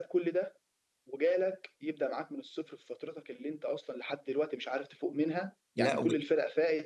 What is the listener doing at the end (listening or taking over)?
listening